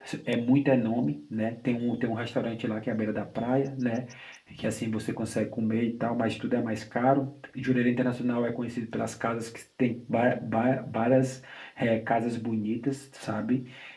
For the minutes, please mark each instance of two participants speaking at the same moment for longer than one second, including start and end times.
none

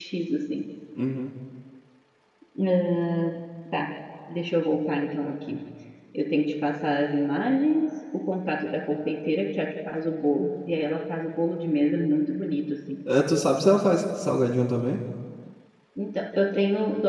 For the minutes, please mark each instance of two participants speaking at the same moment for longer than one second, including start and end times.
none

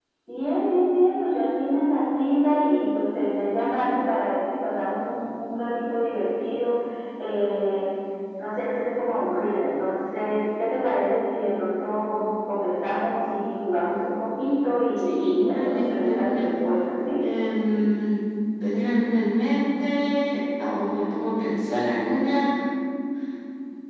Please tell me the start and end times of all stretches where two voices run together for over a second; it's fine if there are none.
15.0-16.5

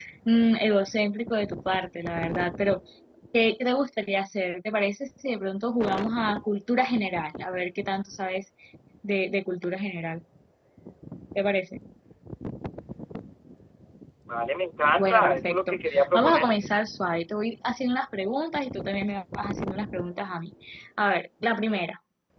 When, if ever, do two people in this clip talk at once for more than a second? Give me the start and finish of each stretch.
15.0-16.7

